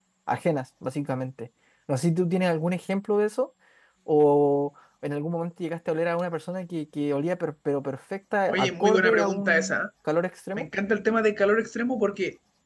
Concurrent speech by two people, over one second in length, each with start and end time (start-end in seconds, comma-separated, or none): 8.5-9.8